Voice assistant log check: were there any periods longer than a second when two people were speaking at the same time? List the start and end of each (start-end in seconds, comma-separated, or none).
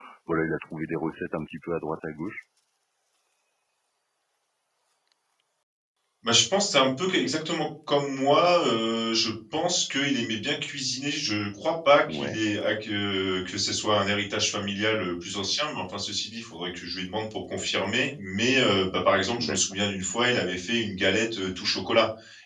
none